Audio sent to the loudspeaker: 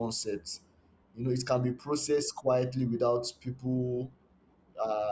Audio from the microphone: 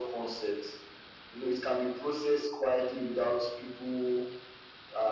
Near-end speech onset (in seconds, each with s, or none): none